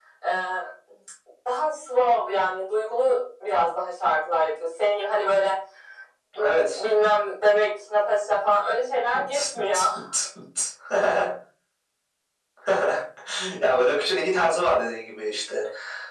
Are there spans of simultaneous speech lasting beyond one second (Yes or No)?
No